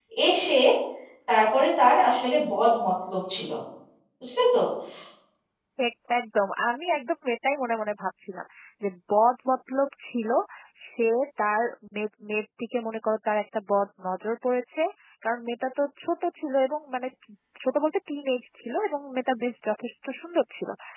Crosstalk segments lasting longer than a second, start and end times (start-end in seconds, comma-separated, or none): none